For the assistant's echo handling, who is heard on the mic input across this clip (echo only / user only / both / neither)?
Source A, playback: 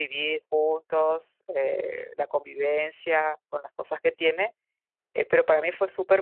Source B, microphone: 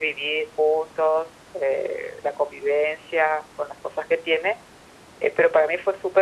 echo only